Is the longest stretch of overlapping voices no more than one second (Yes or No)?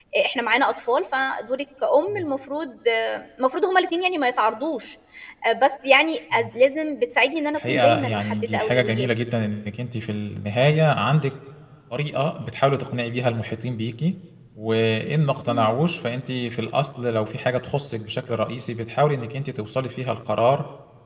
No